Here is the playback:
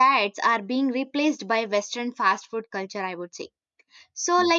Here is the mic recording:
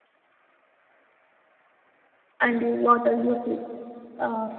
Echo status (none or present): none